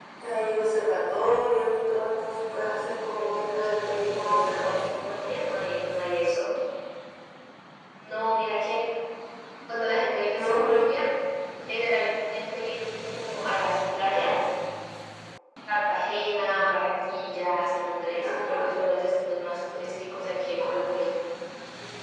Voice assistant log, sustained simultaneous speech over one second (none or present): present